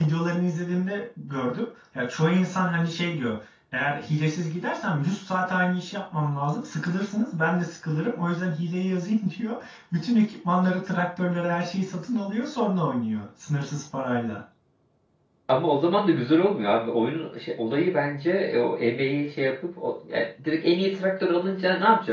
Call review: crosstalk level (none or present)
none